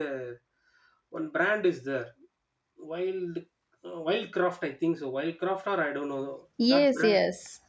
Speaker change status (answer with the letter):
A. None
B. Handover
B